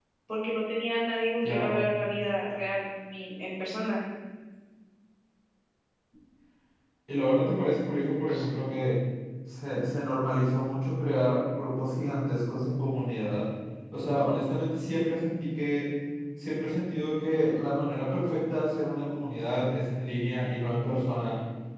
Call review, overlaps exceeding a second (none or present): none